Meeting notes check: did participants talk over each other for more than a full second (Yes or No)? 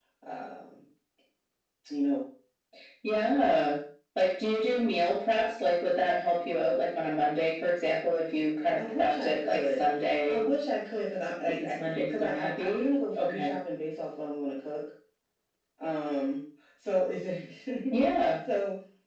Yes